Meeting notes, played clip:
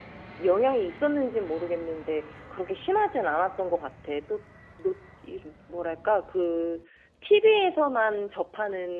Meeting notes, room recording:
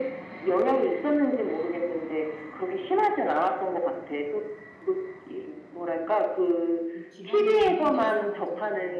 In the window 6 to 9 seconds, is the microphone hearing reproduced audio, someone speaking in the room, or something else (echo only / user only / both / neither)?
both